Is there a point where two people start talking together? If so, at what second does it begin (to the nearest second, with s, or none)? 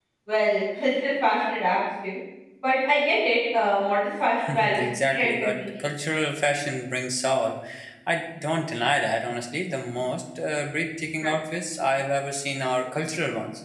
4 s